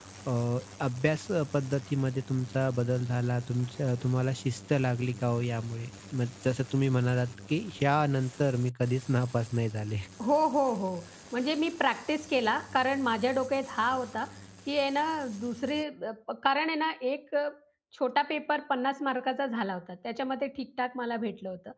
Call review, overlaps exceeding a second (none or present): none